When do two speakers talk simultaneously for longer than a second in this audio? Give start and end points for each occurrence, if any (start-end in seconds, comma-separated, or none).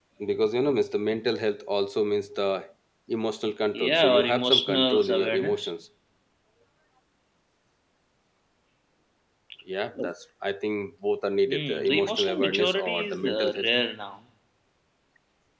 3.7-5.7, 11.5-13.7